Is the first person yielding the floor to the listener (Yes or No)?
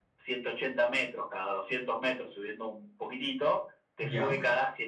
No